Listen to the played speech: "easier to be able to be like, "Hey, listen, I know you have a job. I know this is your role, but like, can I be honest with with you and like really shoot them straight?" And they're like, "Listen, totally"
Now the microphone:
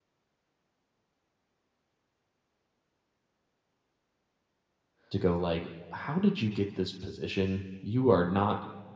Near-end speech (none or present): present